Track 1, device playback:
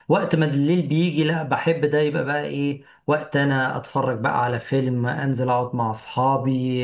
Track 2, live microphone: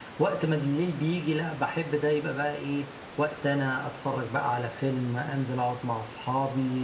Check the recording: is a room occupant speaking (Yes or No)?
No